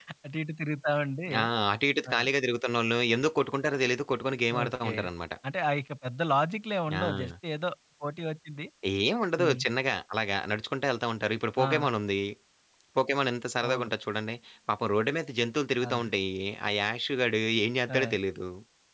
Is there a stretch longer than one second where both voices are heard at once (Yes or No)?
No